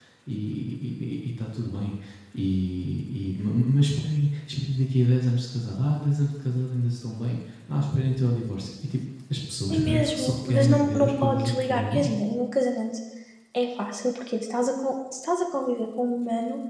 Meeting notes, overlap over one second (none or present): present